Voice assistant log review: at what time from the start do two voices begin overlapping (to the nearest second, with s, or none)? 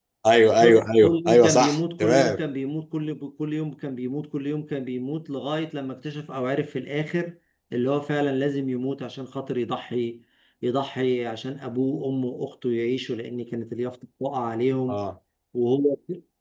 1 s